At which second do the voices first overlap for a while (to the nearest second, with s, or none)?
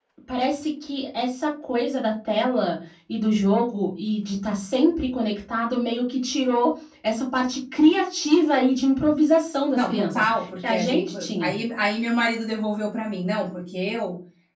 10 s